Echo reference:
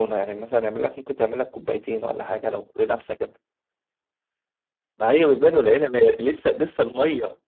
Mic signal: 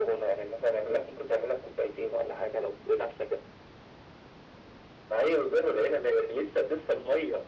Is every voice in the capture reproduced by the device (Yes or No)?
Yes